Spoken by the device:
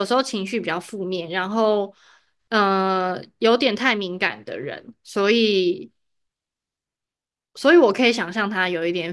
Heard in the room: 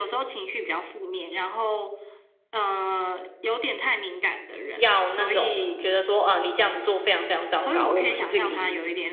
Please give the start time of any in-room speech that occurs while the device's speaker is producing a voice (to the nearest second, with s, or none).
5 s